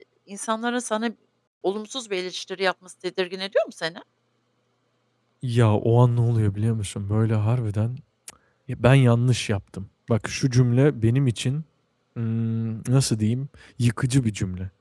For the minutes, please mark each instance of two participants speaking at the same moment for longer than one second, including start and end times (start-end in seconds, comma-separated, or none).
none